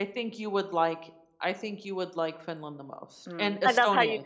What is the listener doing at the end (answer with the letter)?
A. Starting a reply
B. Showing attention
A